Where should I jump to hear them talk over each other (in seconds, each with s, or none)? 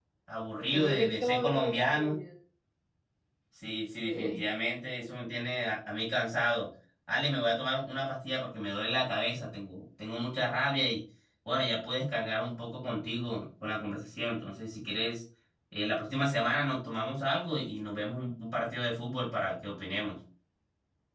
0.7 s